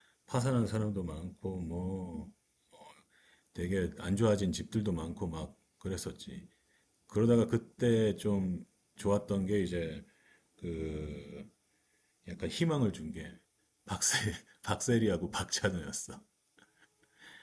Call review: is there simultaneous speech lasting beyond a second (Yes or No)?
No